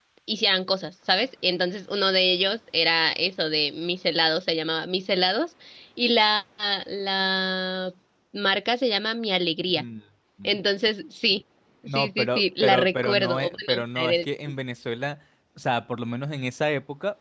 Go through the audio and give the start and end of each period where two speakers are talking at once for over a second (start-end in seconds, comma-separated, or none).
11.9-14.3